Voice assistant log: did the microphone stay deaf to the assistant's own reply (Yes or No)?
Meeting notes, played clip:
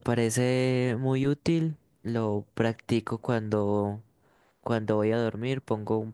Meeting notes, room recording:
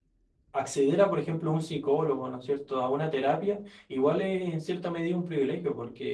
Yes